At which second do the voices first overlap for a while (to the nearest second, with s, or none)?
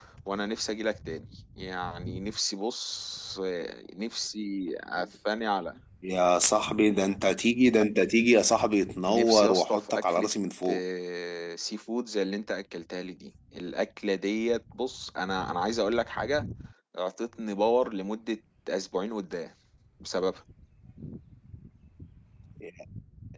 9 s